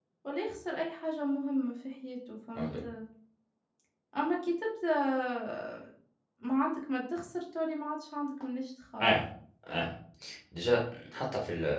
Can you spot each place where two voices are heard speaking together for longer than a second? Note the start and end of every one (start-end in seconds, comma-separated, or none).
none